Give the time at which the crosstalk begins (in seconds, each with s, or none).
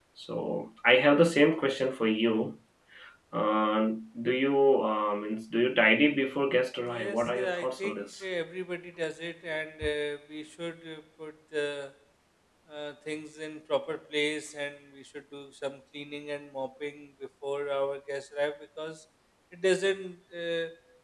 6.9 s